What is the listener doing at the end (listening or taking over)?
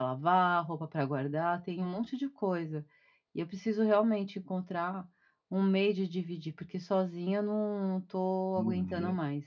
taking over